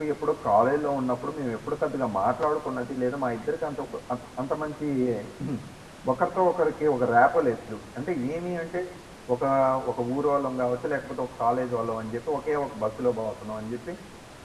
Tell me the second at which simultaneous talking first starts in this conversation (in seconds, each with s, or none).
none